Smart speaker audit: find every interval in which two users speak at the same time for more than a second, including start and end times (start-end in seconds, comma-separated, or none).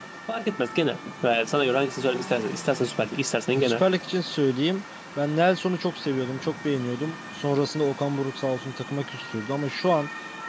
none